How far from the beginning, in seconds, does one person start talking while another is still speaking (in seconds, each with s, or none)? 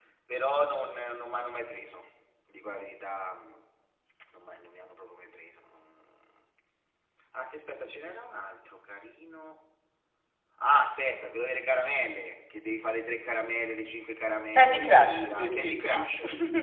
14.5 s